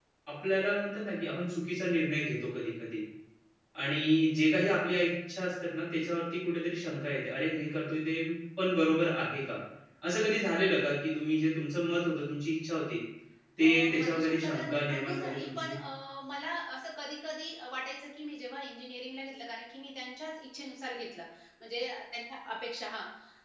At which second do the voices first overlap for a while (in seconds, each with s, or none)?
13.6 s